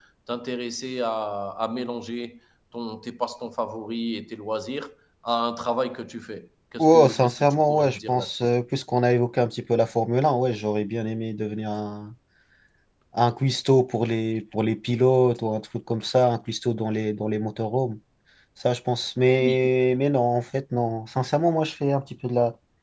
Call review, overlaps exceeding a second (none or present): present